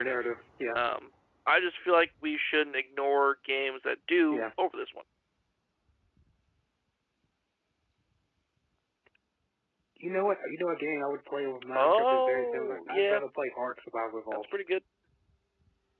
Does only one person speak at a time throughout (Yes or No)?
No